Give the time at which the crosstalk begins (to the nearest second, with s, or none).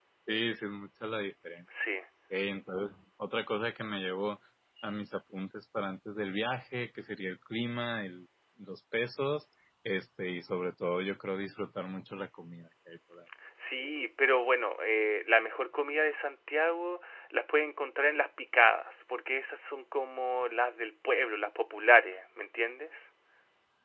none